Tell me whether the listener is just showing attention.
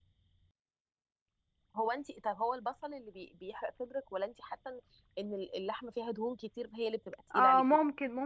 No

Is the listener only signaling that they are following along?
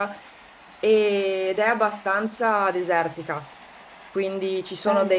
Yes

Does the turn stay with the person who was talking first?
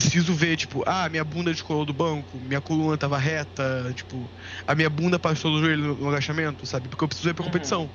Yes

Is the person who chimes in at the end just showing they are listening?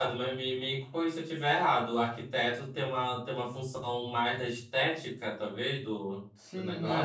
No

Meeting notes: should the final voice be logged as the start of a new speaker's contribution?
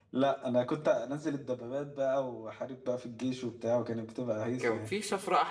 Yes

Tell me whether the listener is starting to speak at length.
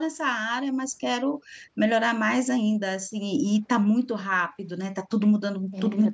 Yes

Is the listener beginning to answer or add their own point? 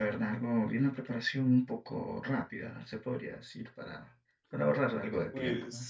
Yes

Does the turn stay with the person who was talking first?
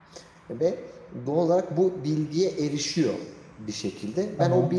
Yes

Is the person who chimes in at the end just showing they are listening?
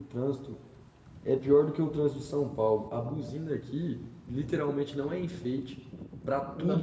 Yes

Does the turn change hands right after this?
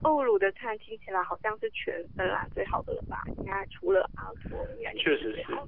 Yes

